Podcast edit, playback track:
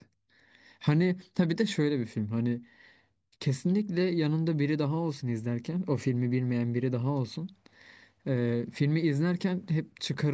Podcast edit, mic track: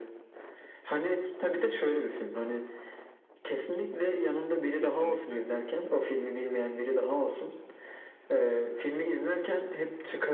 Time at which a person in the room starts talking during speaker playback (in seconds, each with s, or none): 4.8 s